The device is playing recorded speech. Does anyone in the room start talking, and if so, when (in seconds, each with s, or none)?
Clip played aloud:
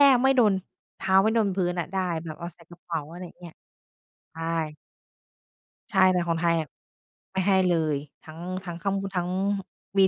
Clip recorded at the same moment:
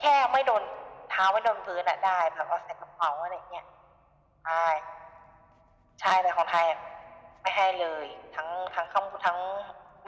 none